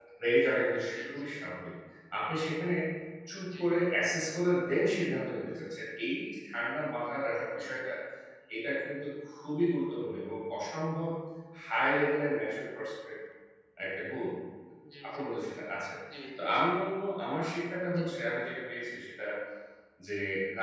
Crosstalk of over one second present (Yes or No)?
No